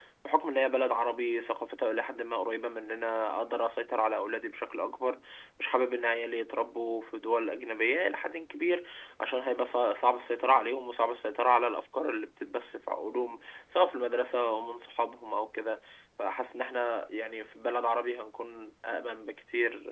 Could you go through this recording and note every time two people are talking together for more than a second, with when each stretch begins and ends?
none

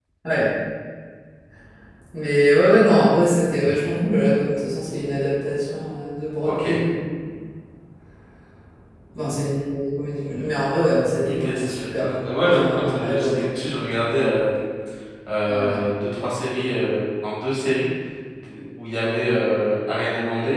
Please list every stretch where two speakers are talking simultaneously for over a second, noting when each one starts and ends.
11.2-13.5

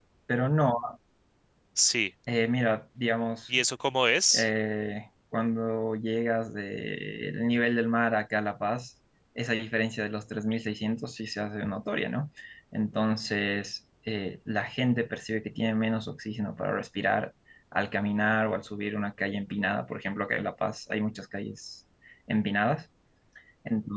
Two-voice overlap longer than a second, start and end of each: none

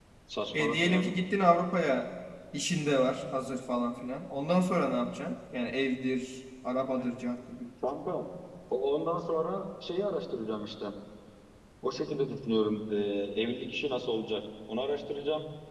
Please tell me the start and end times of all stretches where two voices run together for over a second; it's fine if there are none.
none

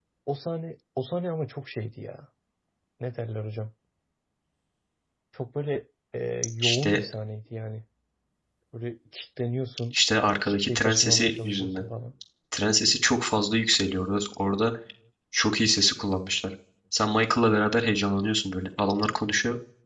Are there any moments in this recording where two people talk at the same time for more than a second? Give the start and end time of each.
10.4-11.8

